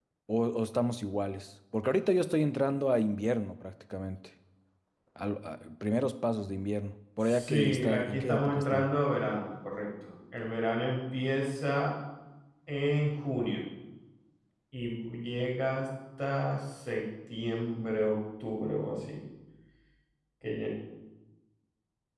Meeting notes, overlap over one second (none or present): present